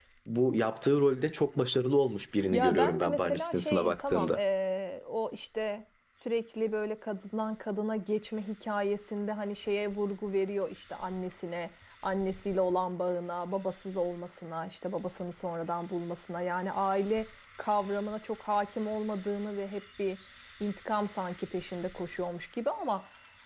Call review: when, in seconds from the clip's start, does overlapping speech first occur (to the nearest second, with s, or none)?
3 s